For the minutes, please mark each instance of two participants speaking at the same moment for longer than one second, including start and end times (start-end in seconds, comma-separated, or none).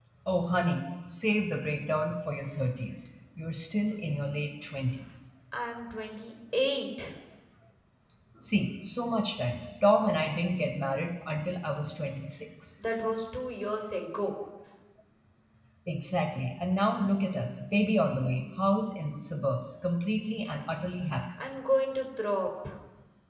none